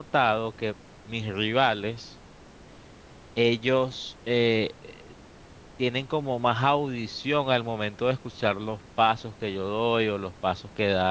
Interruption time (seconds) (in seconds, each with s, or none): none